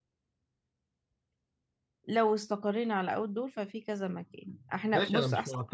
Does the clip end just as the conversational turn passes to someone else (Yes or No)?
Yes